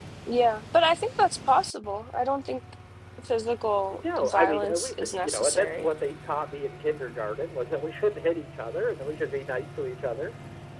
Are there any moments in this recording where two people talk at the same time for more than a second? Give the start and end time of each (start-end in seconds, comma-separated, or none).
3.9-5.9